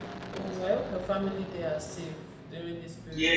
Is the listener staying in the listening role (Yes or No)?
No